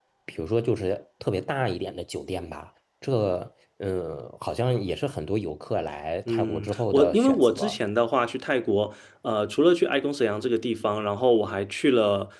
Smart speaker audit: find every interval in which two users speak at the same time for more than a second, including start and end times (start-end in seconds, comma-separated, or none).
6.3-7.8